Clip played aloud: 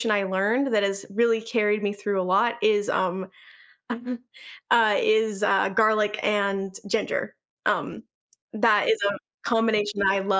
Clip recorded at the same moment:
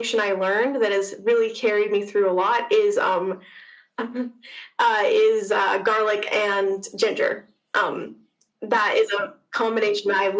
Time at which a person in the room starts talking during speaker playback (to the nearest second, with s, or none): none